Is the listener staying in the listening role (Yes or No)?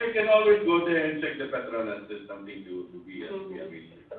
No